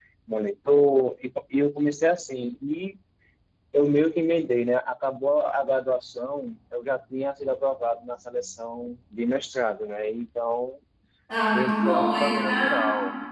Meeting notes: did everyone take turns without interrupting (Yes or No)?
No